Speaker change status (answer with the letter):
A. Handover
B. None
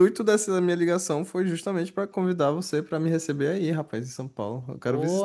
A